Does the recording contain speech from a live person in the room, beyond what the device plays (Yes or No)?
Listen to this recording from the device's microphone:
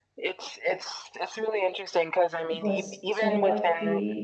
Yes